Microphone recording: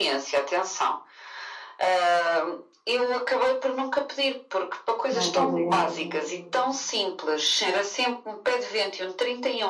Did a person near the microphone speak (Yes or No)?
Yes